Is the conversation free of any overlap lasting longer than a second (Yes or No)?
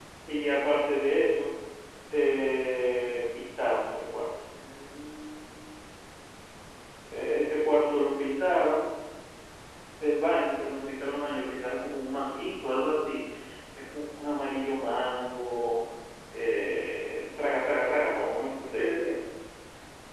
Yes